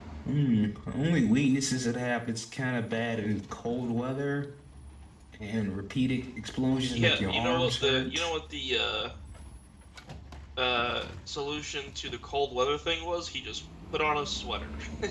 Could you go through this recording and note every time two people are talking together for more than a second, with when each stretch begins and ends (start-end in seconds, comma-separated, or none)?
6.9-8.3